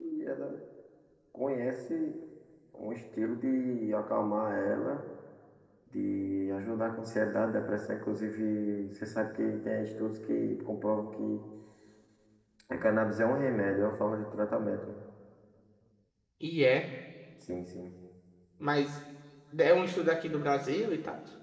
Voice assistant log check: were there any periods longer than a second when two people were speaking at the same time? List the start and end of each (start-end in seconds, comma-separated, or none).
none